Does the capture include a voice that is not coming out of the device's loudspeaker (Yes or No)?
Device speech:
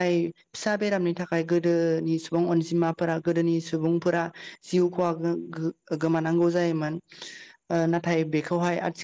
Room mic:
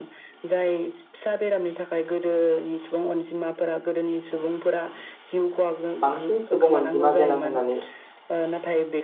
Yes